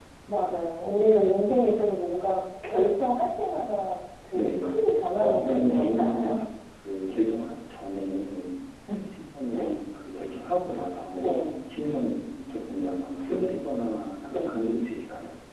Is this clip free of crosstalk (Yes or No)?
No